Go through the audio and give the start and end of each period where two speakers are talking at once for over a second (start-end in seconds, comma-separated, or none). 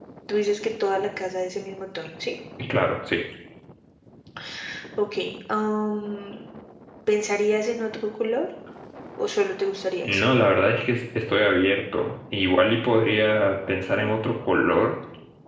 none